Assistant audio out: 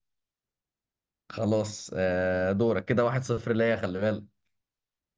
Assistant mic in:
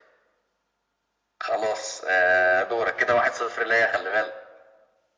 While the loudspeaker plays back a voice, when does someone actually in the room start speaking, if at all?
none

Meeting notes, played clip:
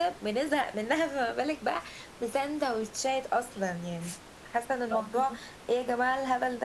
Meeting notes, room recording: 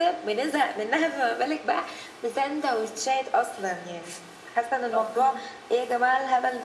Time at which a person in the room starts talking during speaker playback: none

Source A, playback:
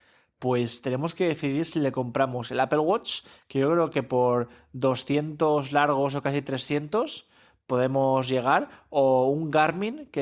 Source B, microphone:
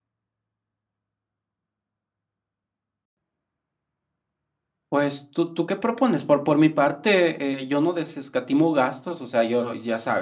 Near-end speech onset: 4.9 s

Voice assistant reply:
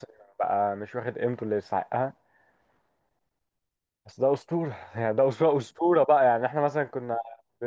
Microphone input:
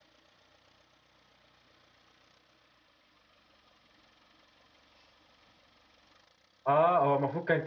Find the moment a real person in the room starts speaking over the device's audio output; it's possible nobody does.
6.7 s

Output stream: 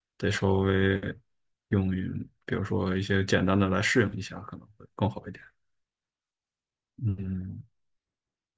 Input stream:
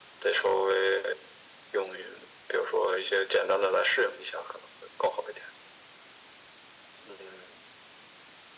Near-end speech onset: none

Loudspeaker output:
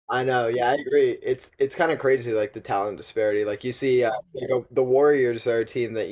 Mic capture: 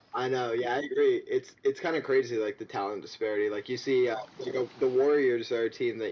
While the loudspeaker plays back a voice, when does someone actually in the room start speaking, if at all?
none

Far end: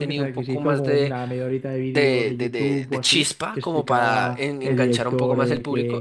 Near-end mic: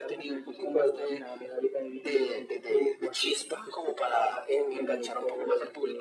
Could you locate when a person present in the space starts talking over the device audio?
none

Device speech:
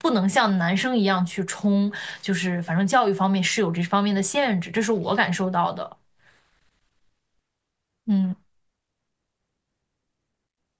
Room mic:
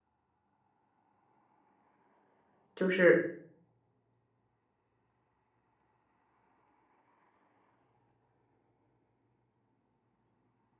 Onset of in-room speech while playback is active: 2.8 s

